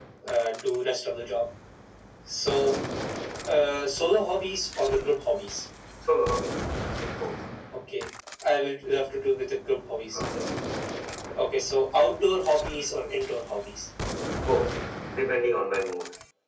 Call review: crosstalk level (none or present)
none